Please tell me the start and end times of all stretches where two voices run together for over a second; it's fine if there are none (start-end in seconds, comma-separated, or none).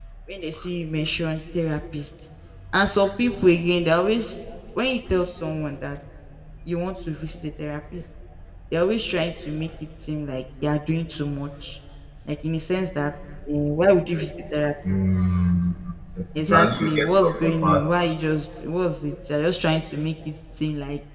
16.5-17.8